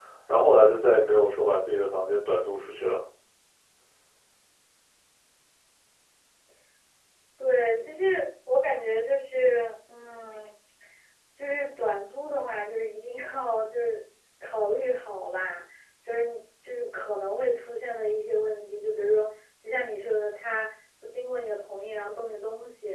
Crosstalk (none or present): none